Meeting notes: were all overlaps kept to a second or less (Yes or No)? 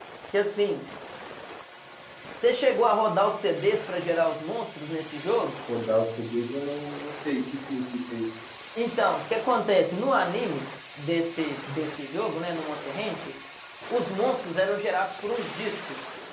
Yes